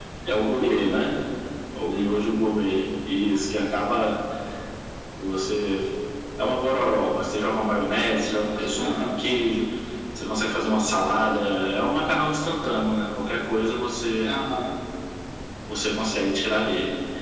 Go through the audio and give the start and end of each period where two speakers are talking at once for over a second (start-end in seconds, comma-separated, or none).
none